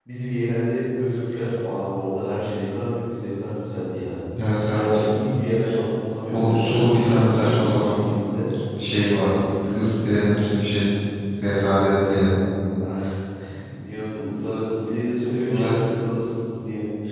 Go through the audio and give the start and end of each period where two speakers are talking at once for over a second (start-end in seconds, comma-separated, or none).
6.3-8.0